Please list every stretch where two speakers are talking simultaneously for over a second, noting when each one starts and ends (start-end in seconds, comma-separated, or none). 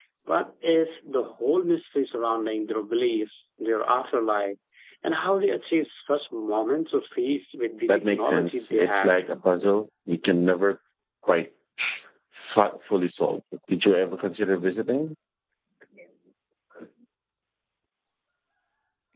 7.9-9.1